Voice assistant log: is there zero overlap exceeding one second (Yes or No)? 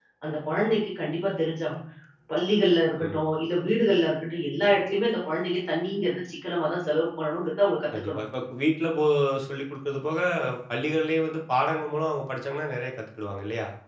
Yes